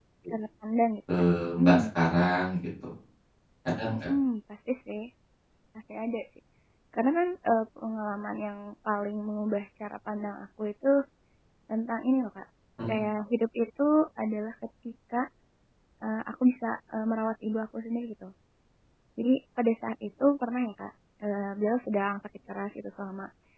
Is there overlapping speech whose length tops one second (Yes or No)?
No